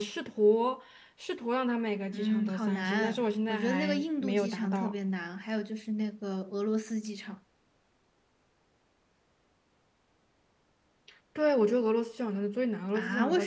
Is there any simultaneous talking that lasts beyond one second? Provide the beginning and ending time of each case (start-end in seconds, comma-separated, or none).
2.1-4.9